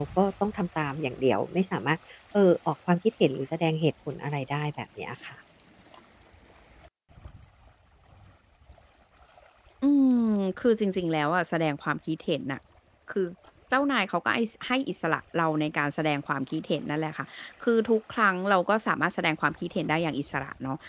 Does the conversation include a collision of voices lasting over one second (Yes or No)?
No